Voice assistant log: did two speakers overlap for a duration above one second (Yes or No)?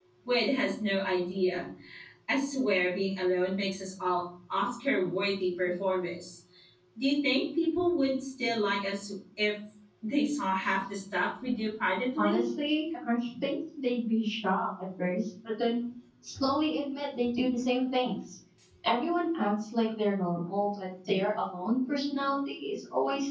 No